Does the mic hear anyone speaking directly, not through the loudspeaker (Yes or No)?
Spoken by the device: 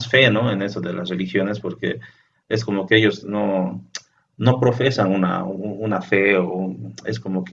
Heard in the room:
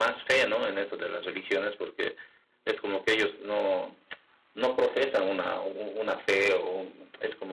No